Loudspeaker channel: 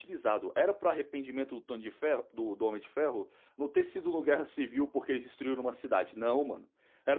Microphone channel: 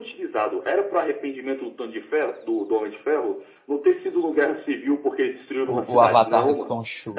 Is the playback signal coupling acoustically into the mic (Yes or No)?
Yes